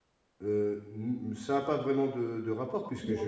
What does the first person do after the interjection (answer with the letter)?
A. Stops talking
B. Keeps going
B